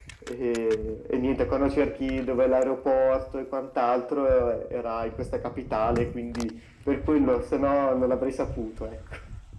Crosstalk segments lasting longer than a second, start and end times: none

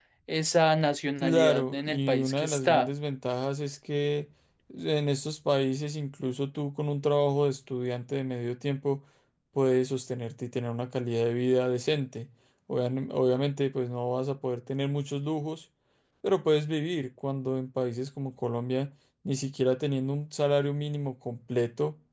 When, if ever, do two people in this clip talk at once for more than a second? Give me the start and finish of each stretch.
1.2-2.9

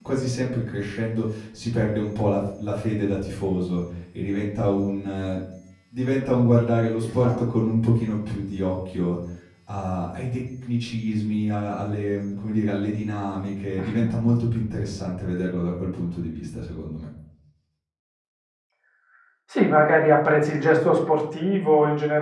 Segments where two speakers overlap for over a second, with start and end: none

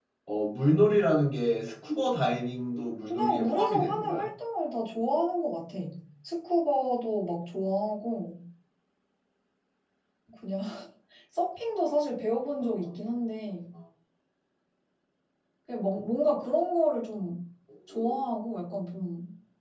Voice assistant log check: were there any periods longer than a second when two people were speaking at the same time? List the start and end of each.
3.0-4.3

